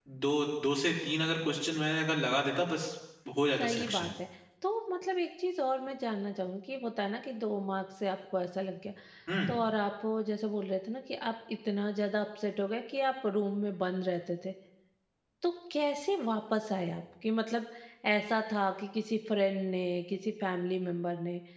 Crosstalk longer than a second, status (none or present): none